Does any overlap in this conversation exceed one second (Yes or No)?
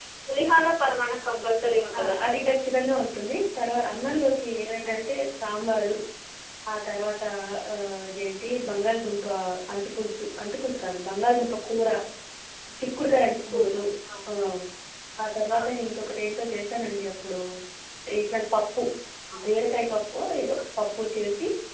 No